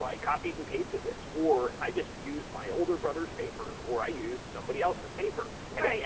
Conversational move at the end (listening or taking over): taking over